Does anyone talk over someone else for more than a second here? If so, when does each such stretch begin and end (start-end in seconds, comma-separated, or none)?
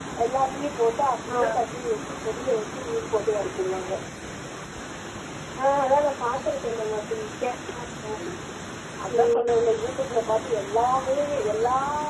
none